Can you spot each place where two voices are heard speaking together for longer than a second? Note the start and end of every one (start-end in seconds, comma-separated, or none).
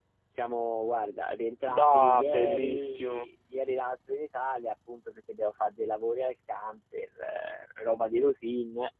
1.7-3.3